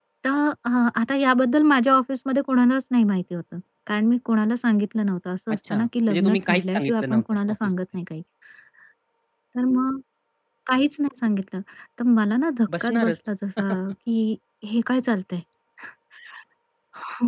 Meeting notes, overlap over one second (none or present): present